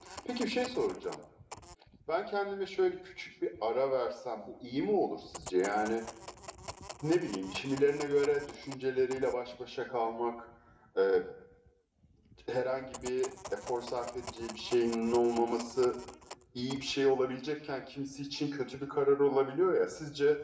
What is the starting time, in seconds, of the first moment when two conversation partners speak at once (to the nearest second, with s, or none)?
none